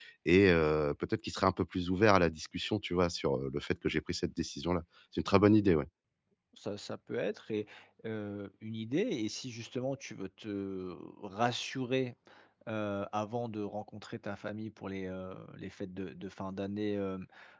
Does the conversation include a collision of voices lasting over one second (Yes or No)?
No